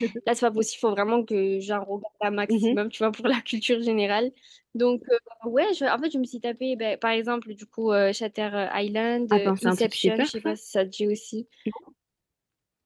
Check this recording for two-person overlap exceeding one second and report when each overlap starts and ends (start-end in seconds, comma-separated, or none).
9.3-10.5